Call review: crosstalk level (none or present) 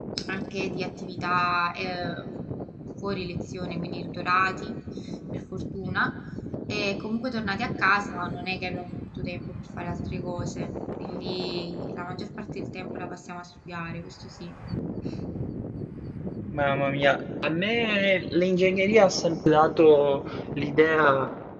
none